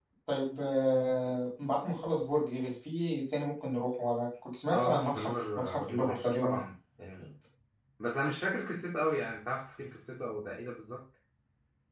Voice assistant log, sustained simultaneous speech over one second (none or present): present